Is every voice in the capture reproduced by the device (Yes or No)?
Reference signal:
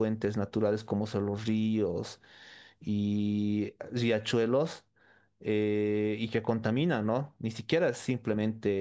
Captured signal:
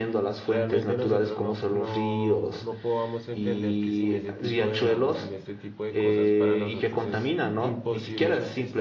No